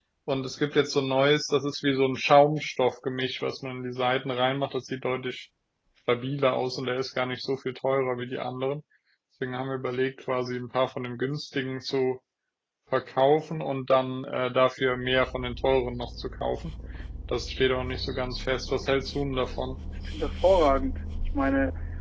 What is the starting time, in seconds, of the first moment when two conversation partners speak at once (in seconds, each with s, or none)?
none